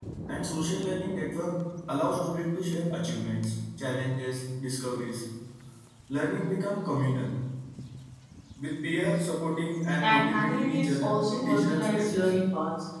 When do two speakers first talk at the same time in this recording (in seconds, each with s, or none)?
10.0 s